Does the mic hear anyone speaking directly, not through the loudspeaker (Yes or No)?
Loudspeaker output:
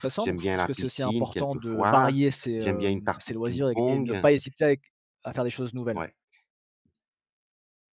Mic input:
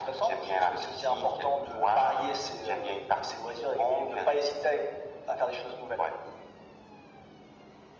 No